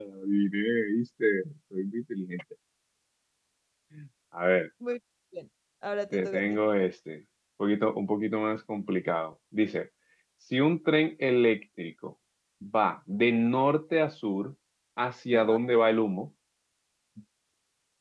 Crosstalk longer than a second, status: none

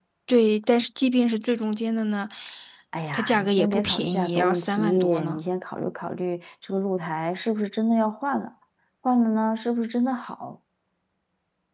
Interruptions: present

